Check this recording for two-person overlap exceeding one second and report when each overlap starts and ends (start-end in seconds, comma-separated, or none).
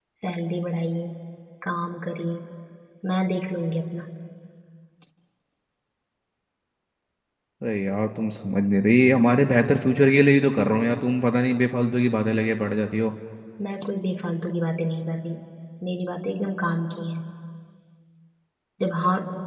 none